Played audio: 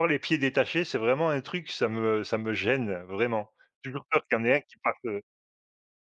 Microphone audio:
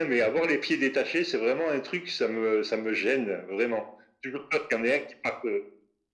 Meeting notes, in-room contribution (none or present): none